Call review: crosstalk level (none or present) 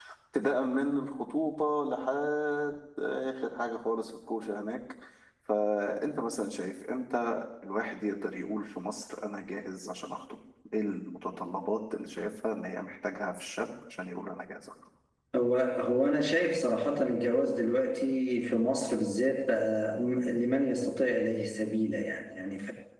none